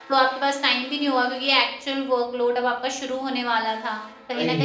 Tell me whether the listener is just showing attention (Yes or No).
Yes